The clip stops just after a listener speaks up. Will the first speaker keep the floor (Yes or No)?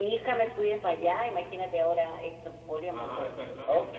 No